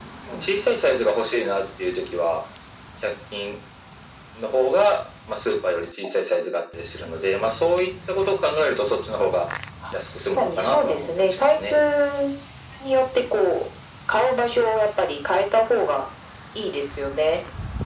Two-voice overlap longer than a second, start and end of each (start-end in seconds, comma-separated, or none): 10.2-11.7